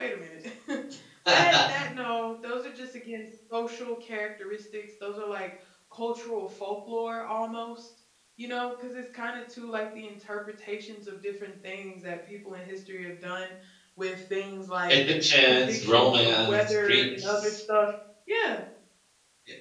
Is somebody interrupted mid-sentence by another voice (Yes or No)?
Yes